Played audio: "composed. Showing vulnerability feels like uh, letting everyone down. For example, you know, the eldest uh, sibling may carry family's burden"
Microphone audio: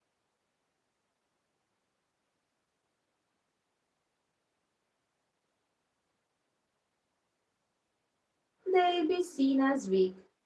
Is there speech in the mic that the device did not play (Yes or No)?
Yes